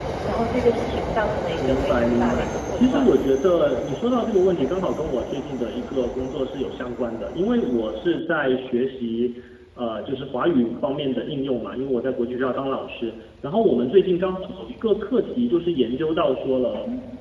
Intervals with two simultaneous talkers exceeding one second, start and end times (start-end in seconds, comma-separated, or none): 1.6-3.1